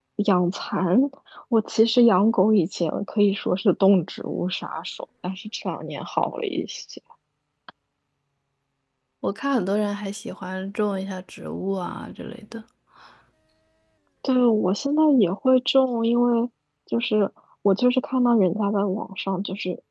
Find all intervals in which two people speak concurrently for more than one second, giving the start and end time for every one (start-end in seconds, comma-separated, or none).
none